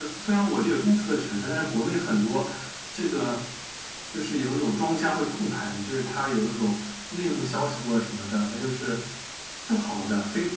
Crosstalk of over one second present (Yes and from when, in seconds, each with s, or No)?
No